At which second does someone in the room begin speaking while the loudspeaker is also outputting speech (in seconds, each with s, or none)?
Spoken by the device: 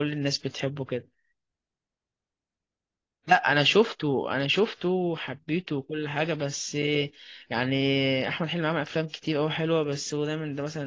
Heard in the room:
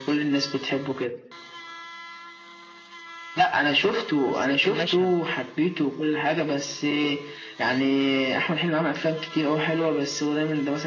4.2 s